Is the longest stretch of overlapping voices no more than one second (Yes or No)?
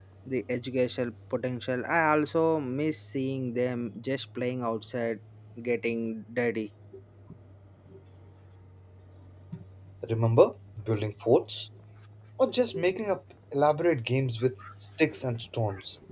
Yes